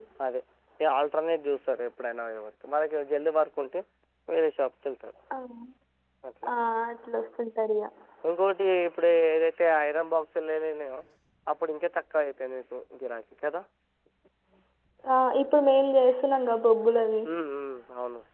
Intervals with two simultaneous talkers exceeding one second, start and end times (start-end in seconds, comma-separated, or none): none